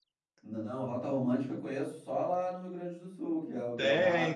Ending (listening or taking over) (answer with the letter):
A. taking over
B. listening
A